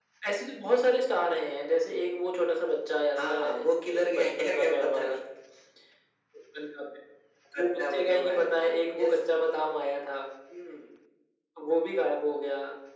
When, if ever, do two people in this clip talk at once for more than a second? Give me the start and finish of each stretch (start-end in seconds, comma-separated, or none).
3.1-5.2, 7.6-9.2